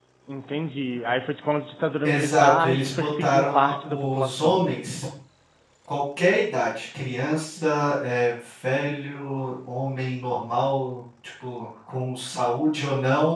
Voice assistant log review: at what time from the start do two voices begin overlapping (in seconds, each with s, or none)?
2.0 s